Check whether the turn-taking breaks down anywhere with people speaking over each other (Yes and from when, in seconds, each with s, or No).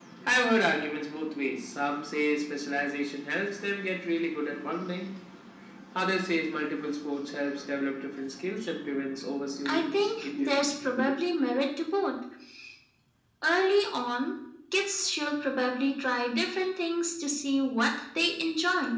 Yes, from 9.6 s